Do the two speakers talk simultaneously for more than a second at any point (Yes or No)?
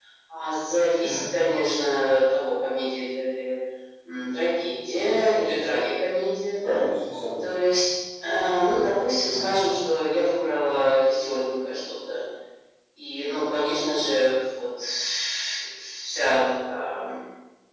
No